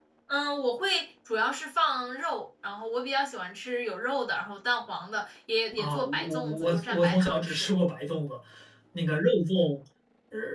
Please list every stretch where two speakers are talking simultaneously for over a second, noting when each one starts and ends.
5.8-7.7

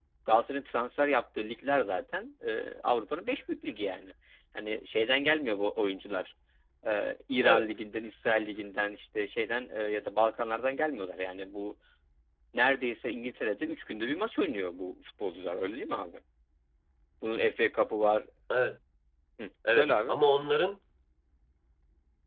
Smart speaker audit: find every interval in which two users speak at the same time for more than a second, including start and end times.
none

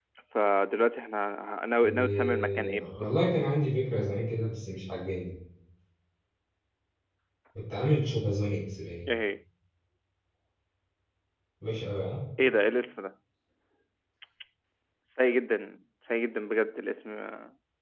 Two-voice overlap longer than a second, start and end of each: 1.8-3.1

